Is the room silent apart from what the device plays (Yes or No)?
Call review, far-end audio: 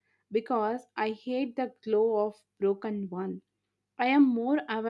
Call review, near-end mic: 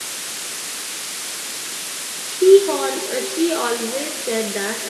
No